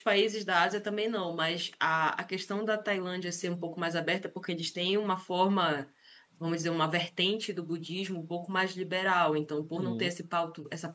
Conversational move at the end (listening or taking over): listening